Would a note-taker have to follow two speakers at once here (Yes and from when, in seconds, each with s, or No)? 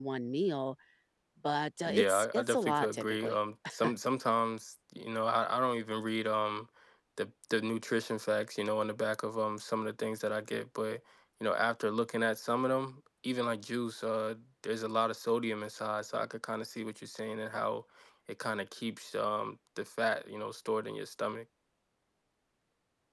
Yes, from 1.9 s